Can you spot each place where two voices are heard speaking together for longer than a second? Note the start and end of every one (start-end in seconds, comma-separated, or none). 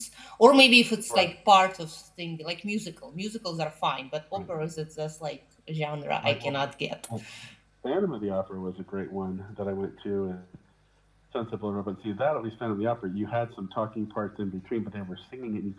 none